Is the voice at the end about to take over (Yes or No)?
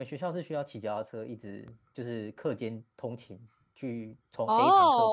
Yes